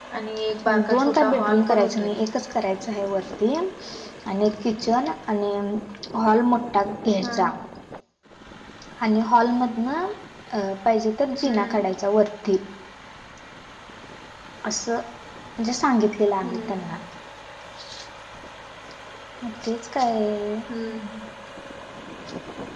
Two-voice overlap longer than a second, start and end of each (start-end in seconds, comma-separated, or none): 0.7-2.1